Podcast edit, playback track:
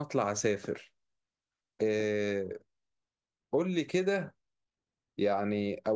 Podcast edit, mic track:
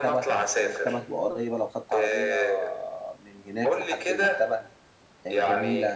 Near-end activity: present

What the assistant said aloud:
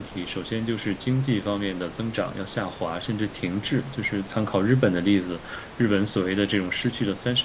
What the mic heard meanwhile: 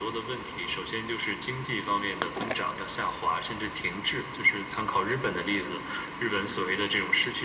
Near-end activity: none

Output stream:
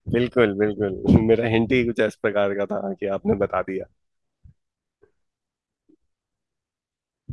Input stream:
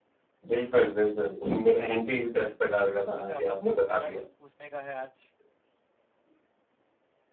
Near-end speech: present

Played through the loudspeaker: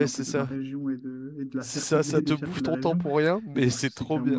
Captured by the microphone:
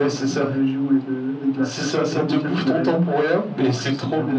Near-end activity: none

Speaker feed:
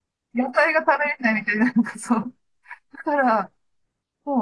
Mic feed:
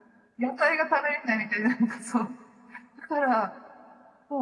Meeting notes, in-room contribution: none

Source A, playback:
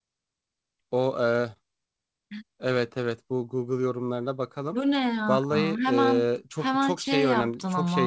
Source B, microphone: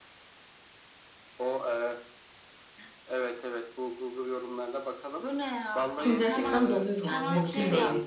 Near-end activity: present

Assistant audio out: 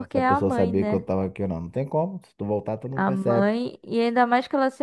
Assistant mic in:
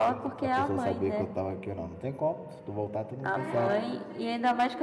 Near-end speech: present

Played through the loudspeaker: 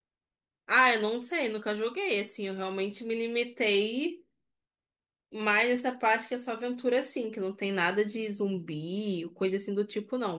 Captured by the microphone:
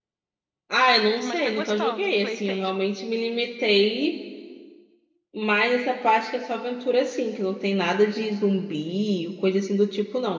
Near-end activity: present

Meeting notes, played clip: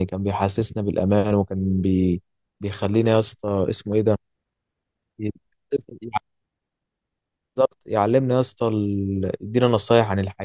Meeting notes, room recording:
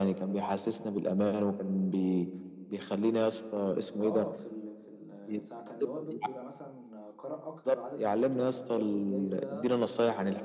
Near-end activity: present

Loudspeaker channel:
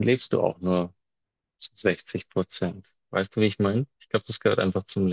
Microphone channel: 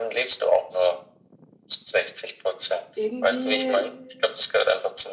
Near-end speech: present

